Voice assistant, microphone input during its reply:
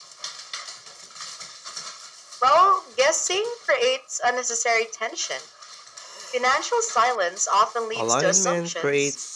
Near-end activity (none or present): present